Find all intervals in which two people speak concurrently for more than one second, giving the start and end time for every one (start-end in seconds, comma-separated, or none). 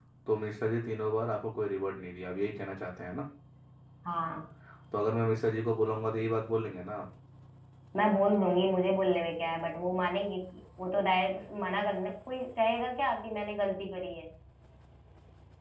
none